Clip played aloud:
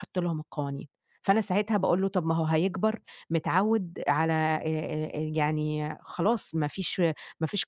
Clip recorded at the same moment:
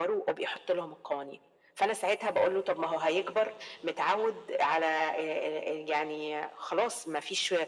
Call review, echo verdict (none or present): present